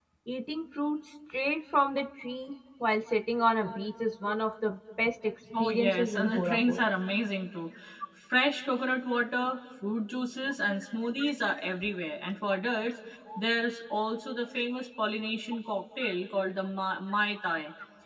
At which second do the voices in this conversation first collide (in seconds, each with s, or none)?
5.5 s